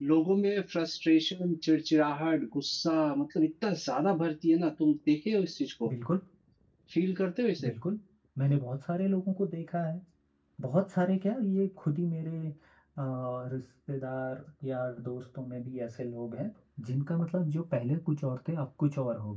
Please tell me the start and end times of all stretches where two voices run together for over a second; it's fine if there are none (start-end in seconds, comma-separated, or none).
none